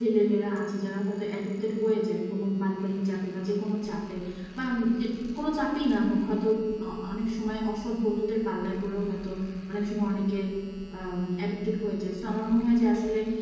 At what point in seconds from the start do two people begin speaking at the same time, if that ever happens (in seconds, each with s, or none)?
none